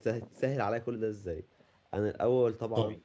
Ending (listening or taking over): listening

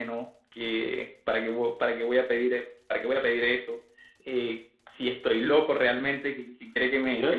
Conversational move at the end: taking over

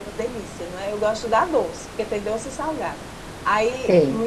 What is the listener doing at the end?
listening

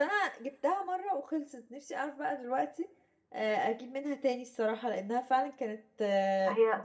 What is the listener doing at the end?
taking over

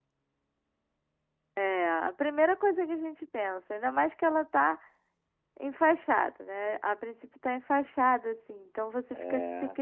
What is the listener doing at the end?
listening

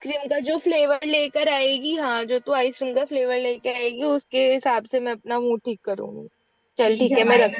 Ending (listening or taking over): taking over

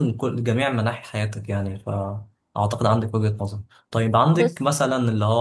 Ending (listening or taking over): listening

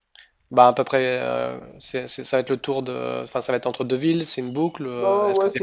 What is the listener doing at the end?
taking over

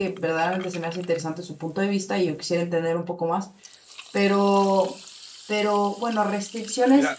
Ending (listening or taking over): taking over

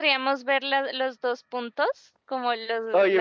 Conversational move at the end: taking over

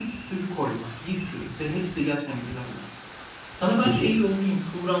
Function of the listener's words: listening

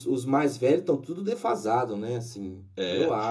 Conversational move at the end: taking over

